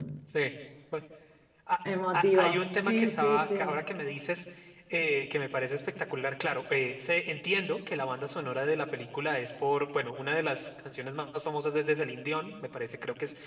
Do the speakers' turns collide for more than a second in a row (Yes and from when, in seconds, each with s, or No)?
Yes, from 2.1 s